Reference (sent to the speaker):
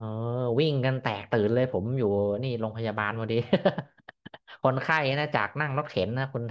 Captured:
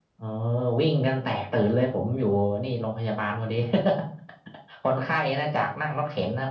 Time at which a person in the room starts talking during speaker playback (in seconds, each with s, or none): none